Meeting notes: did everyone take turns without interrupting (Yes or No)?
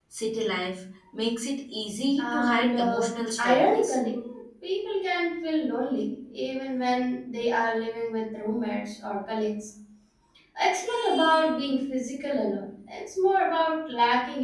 No